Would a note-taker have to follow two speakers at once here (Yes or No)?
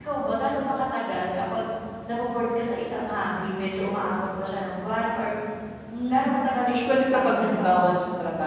Yes